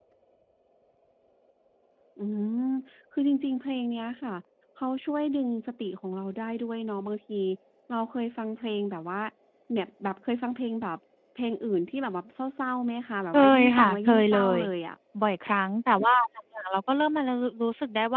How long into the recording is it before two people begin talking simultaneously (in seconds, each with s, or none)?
13.3 s